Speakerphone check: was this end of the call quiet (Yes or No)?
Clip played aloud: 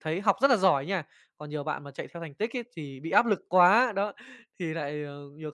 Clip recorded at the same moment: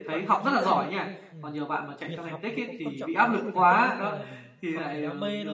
No